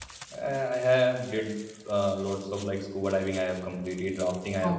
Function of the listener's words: listening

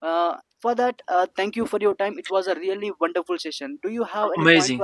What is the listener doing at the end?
taking over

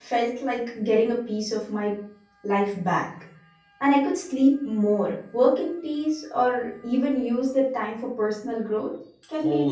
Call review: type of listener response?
taking over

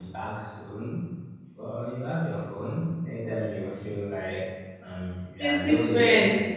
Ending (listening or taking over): listening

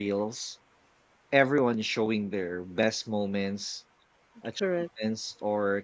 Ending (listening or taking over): listening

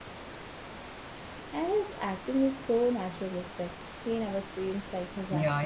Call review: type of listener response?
taking over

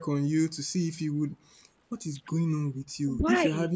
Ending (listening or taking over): listening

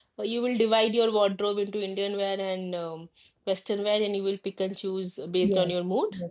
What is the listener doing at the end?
taking over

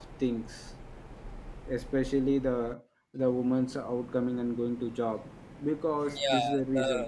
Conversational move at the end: taking over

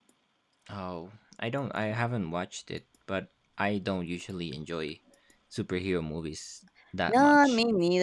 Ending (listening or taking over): taking over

